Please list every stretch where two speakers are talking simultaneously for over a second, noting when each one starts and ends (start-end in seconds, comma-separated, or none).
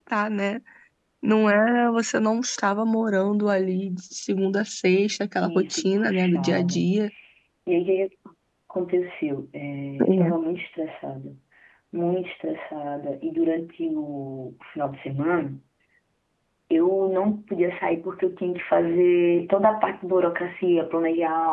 5.4-6.8